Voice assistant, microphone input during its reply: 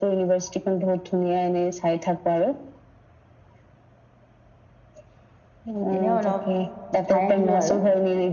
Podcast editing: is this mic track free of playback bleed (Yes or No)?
No